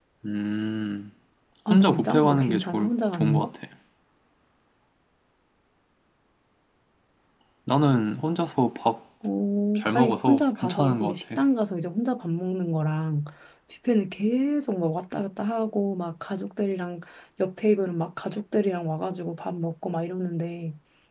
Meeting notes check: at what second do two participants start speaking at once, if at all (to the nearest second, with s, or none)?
2 s